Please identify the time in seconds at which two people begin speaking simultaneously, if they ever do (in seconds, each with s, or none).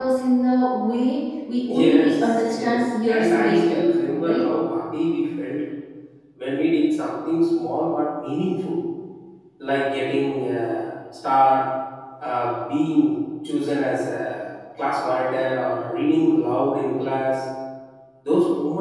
1.7 s